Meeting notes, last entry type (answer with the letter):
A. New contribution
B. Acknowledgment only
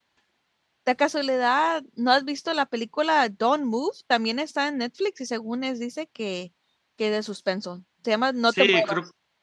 A